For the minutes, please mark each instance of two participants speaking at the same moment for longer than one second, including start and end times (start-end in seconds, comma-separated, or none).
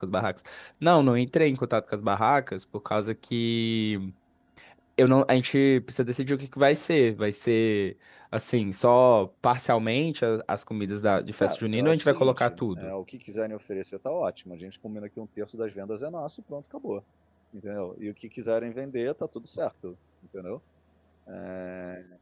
11.4-12.9